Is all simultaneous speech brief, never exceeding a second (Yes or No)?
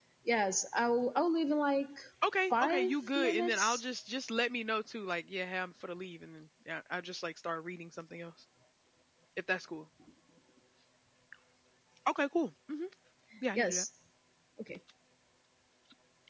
No